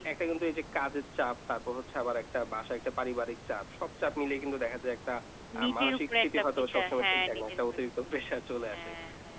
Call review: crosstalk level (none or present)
present